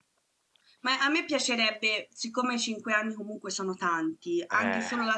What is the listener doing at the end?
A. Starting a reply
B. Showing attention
B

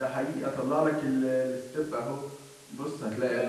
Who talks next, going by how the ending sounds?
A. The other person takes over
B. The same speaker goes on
B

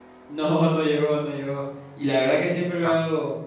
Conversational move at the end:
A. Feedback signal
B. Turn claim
A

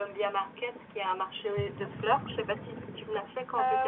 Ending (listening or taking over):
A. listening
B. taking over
B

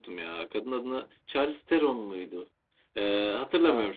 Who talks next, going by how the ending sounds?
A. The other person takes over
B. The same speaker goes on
B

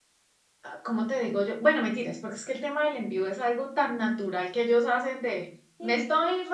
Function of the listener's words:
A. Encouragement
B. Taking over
A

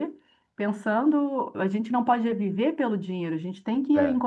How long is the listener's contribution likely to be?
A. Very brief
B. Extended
A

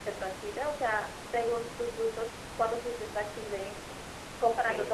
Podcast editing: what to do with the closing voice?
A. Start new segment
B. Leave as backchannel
B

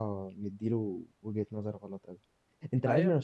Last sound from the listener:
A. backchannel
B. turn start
A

